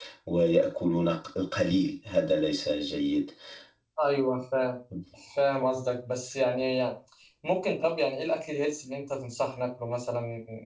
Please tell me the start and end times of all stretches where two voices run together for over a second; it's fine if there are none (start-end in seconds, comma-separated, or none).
none